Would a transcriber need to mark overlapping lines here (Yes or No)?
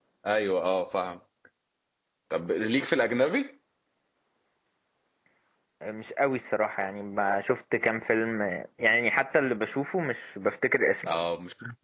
No